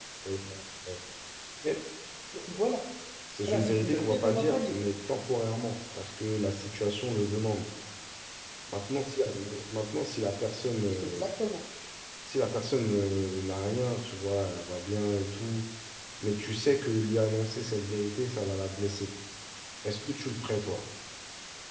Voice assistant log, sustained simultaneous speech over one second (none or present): present